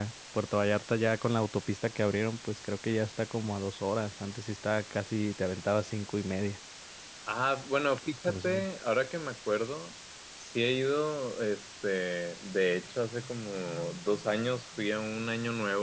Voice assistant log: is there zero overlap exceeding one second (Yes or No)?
Yes